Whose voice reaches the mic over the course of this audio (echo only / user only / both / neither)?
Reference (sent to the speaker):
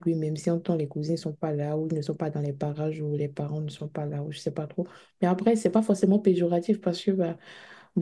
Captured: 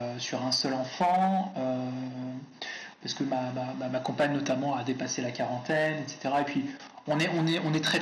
user only